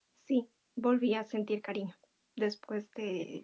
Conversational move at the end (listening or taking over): listening